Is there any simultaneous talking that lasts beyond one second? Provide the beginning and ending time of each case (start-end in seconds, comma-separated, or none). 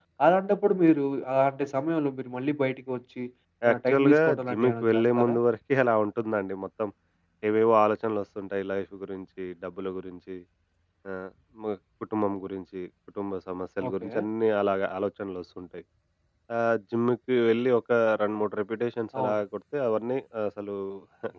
3.7-5.4